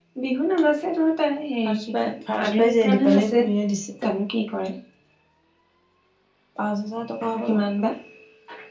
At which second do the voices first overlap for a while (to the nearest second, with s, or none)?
2 s